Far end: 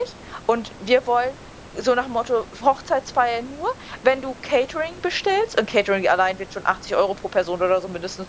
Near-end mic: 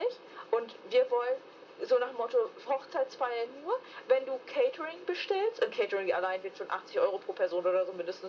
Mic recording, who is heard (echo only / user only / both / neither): echo only